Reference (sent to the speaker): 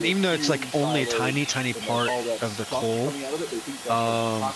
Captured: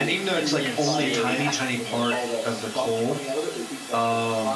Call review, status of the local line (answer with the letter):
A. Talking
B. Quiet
A